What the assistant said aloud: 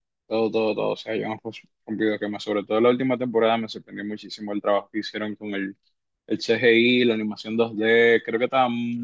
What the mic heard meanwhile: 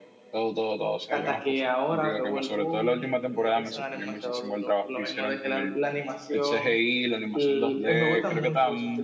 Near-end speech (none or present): present